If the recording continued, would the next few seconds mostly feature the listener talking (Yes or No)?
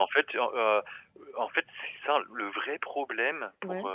No